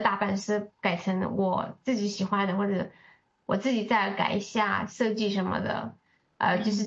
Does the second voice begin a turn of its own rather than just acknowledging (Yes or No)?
No